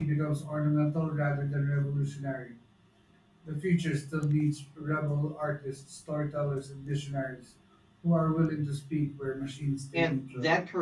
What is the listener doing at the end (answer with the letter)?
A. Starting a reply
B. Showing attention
A